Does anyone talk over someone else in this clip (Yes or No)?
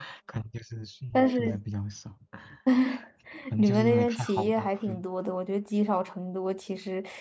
Yes